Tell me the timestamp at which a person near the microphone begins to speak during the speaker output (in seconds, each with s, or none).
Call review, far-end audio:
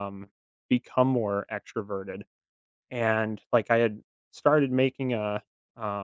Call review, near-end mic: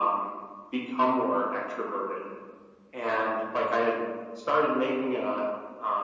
none